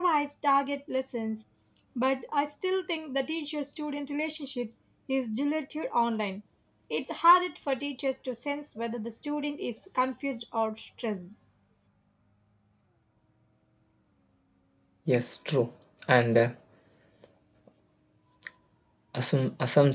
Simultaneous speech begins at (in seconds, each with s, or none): none